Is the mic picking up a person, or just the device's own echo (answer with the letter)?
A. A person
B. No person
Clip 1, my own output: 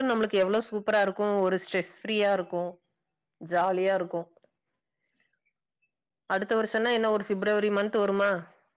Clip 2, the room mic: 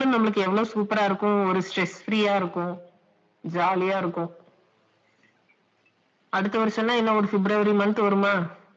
B